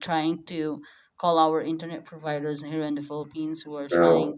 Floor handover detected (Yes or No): No